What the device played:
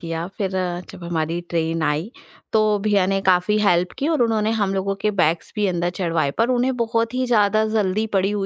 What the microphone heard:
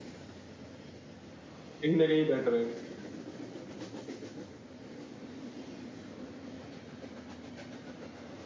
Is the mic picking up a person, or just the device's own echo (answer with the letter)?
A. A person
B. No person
A